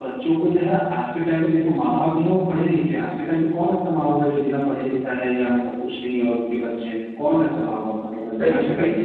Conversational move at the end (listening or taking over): taking over